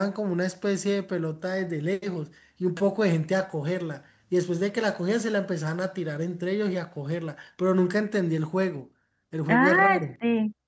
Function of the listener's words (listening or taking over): taking over